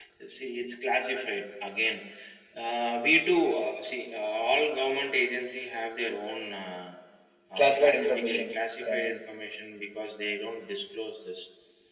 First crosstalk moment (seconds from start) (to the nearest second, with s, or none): 8 s